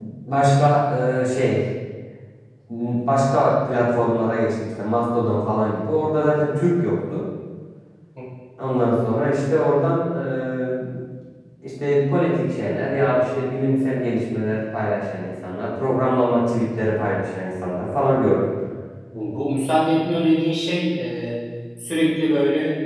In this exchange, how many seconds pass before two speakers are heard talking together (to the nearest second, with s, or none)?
none